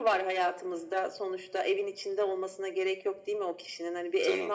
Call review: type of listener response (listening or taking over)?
listening